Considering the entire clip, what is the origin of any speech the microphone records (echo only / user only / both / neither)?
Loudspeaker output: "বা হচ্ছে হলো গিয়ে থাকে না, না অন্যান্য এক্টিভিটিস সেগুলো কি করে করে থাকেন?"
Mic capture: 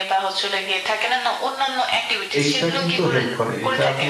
both